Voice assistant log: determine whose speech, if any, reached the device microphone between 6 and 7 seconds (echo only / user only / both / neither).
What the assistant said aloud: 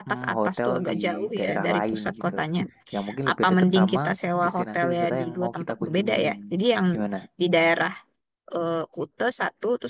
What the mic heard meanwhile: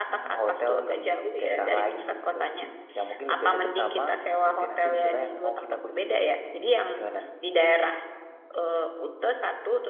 echo only